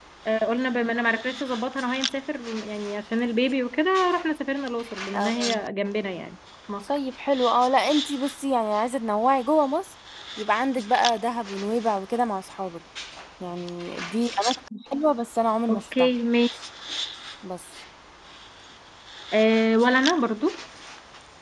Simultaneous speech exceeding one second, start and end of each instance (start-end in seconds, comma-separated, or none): none